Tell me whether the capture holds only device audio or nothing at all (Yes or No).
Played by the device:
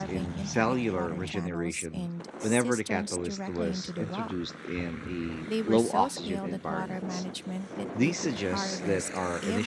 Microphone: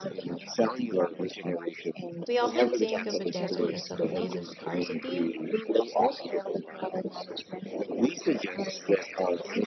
No